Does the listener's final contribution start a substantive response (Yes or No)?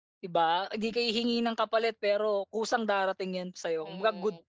Yes